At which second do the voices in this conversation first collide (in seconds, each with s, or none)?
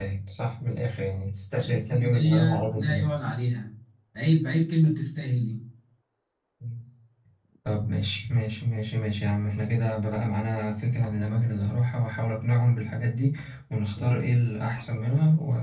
1.5 s